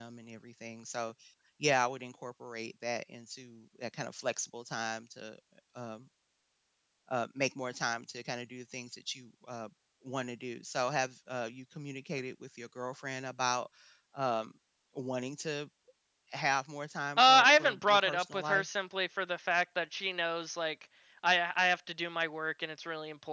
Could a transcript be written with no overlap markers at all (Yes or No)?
No